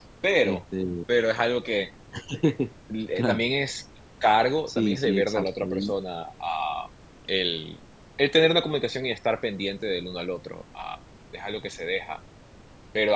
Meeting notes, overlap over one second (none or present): present